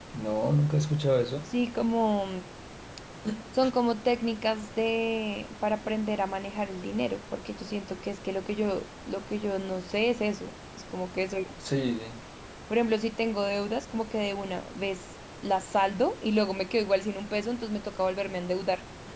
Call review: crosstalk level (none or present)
none